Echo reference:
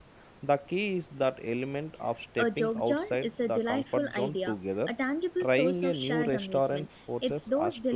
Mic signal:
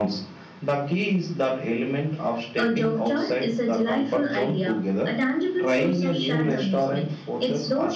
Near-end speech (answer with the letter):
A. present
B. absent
B